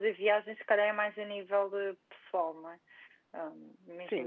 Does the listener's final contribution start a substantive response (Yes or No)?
Yes